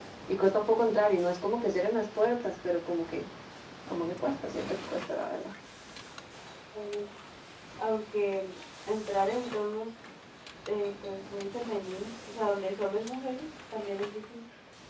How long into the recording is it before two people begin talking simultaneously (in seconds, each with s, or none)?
none